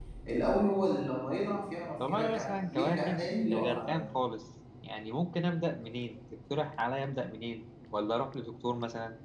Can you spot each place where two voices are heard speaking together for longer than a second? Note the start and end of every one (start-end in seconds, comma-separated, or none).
2.1-4.0